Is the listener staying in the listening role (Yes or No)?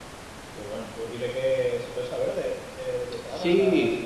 No